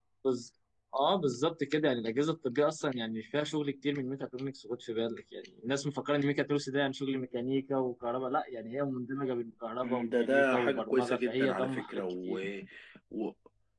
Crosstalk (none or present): present